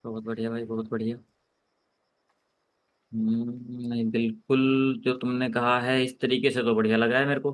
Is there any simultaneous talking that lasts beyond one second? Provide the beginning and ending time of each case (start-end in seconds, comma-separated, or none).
none